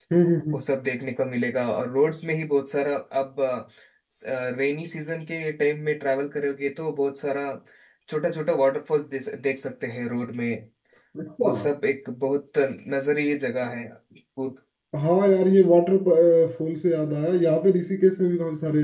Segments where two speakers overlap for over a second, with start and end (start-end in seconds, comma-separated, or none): none